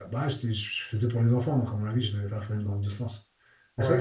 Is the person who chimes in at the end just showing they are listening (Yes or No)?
No